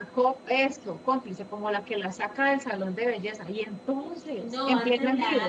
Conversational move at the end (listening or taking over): taking over